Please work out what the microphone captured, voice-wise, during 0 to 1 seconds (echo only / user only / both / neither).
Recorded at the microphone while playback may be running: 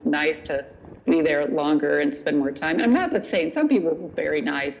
echo only